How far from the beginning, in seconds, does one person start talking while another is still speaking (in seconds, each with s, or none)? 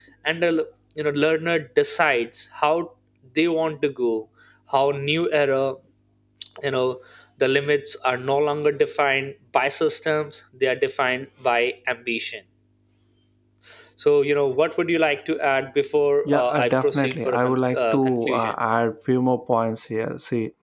16.2 s